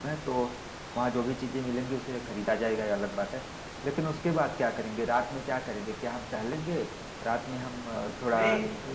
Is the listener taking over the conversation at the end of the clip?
Yes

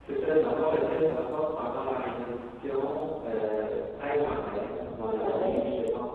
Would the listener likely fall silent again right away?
Yes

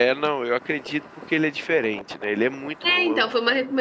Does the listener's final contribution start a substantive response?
Yes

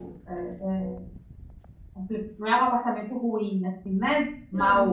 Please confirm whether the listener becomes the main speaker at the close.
Yes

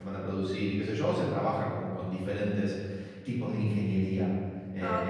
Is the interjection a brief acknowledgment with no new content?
No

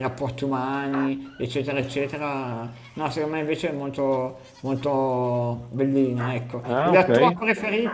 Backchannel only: Yes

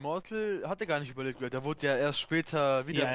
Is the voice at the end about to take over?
Yes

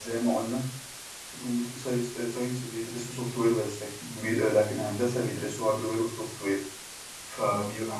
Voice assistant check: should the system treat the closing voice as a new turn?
No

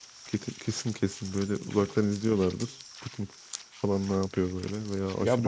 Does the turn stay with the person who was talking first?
No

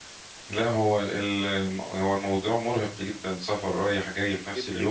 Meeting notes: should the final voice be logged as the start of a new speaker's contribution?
Yes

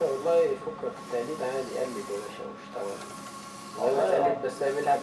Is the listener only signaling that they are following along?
Yes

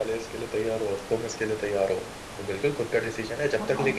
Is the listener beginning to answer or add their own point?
No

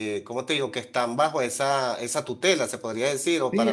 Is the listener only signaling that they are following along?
No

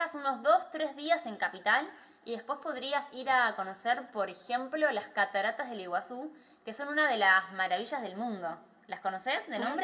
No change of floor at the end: No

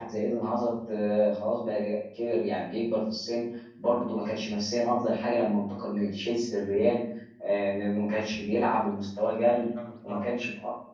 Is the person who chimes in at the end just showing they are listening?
Yes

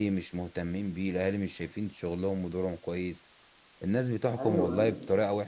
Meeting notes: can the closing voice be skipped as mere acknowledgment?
Yes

